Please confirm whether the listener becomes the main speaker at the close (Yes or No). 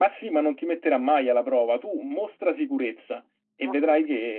No